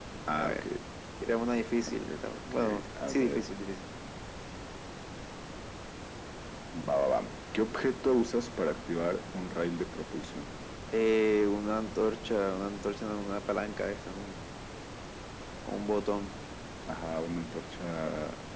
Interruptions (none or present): present